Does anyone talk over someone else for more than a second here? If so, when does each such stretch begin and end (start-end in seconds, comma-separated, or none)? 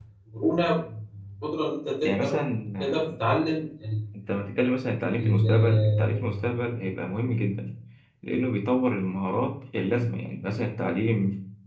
5.2-6.5